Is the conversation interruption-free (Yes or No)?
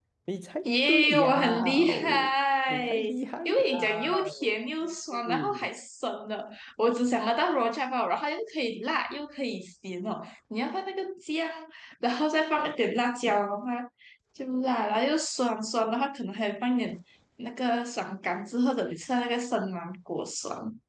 No